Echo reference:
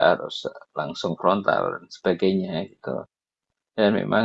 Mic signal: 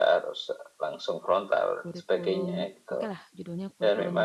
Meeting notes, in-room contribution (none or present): present